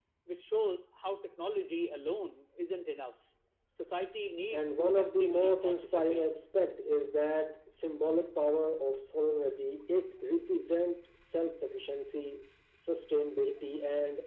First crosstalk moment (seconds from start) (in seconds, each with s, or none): 4.5 s